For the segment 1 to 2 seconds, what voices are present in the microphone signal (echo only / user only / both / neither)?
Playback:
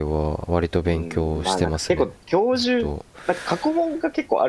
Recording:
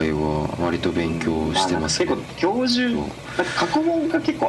echo only